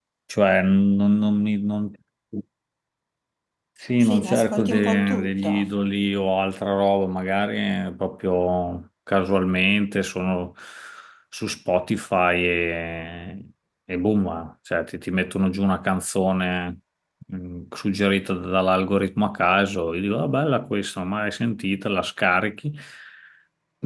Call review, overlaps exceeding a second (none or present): present